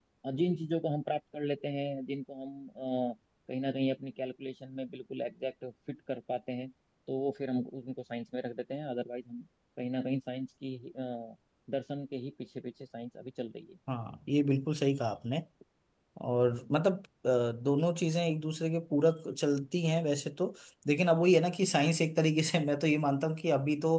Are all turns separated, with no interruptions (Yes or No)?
Yes